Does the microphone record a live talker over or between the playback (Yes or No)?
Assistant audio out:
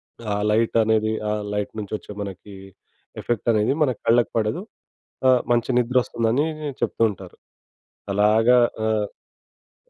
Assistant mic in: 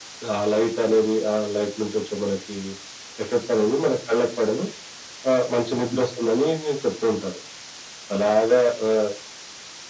No